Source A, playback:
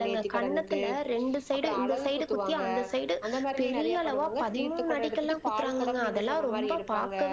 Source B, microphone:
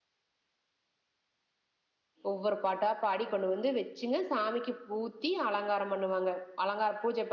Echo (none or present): none